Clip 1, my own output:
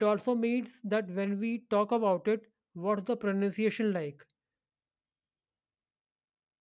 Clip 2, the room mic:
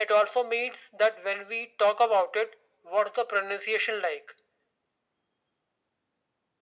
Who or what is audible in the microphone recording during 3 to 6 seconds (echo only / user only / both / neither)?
echo only